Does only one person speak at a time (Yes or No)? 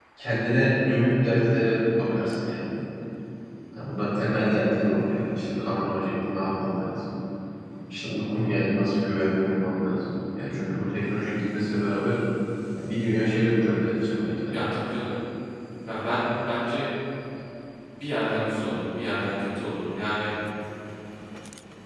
Yes